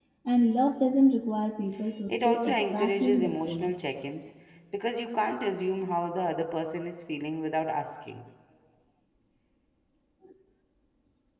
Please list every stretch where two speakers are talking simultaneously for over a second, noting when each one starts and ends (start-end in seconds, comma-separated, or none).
2.1-3.7